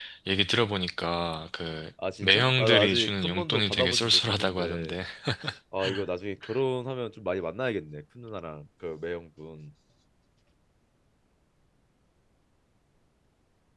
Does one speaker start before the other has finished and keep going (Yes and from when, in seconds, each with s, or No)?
Yes, from 2.0 s